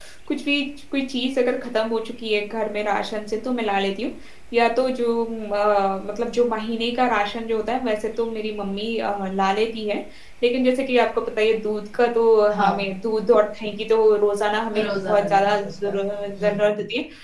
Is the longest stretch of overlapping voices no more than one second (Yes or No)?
No